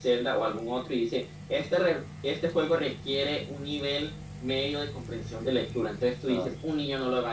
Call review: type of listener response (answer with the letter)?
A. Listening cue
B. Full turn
A